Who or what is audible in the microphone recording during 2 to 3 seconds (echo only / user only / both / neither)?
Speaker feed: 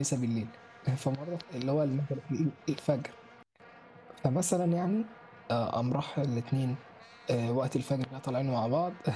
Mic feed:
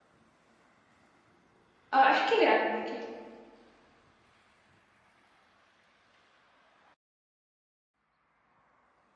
user only